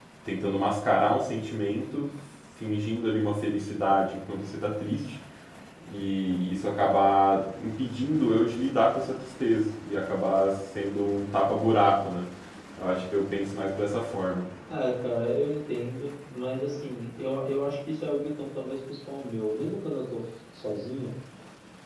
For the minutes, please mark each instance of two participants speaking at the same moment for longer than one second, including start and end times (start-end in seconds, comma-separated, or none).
none